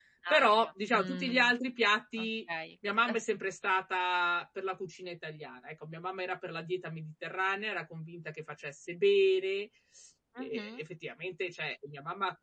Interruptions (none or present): present